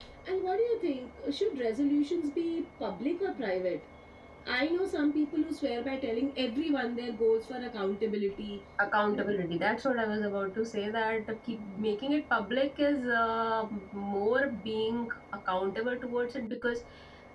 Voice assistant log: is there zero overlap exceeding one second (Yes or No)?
Yes